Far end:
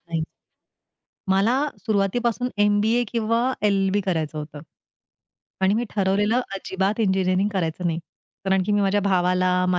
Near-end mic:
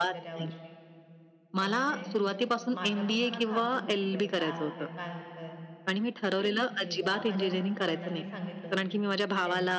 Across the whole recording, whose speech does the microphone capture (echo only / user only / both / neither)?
both